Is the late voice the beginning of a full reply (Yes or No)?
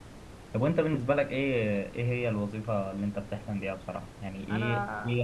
No